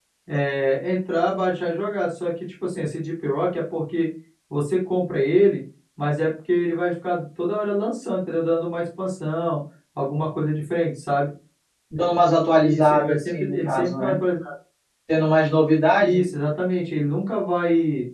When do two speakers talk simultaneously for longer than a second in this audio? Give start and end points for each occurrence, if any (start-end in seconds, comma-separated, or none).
12.5-14.2